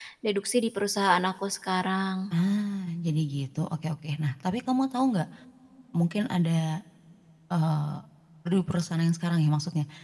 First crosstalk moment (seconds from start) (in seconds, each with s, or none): none